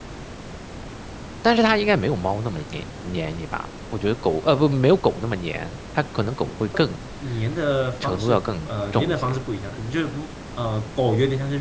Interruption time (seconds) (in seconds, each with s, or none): 8.0 s